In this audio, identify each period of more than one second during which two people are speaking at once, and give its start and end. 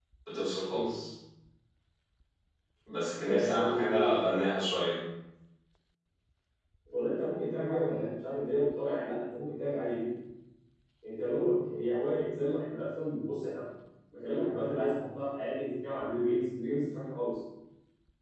3.1-4.4

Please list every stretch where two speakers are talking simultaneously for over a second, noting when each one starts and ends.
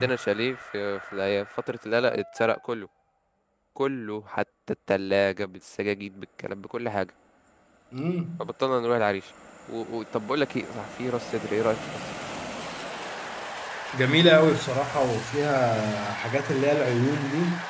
none

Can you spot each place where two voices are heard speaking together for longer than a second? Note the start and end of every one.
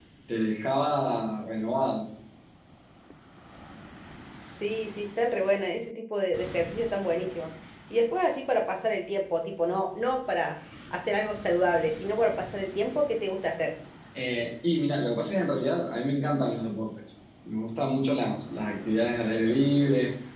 none

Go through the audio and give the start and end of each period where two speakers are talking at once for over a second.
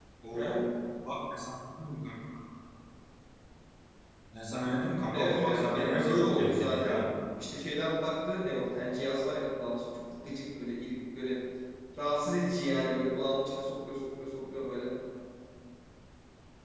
5.1-7.0

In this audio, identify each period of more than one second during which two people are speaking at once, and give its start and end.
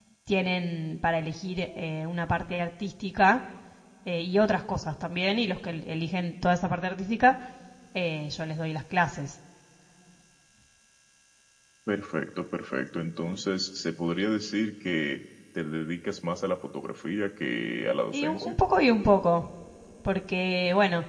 none

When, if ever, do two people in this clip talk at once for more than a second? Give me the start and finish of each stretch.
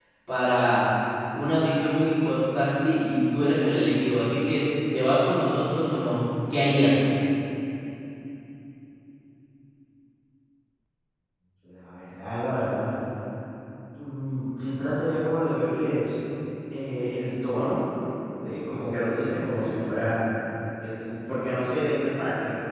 none

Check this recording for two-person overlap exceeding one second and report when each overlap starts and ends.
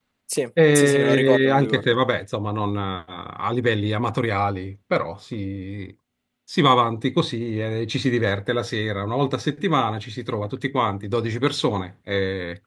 0.8-2.0

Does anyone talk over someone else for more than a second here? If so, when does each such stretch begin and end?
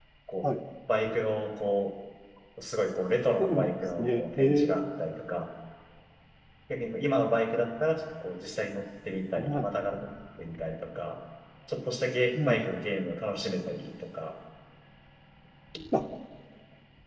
3.4-4.8

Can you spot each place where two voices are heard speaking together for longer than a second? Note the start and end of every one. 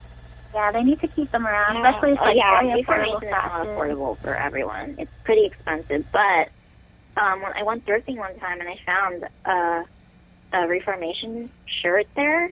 1.6-4.0

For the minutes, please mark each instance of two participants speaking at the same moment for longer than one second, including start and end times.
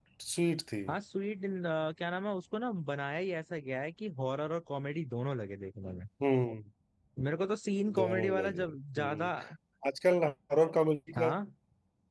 8.0-9.3

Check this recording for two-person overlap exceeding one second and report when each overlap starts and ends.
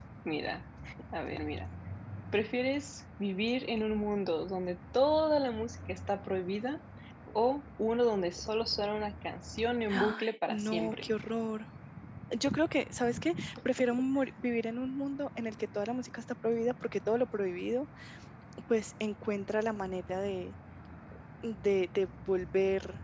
9.9-11.1

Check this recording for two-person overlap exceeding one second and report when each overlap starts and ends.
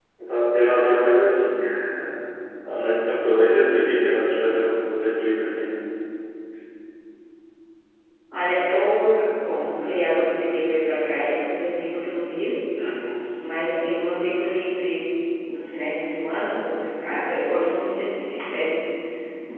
none

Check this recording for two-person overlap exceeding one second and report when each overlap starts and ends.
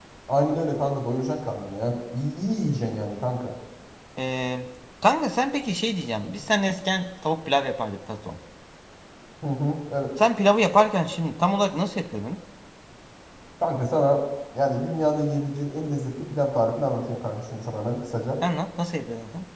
none

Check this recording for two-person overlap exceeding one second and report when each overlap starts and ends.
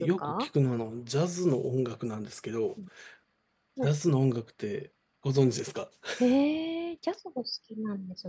none

